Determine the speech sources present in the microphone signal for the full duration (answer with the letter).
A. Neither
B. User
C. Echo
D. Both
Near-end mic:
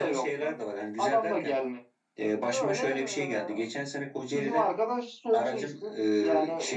C